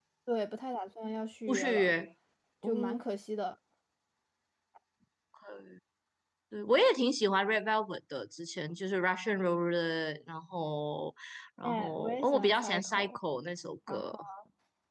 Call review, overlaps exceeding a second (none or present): present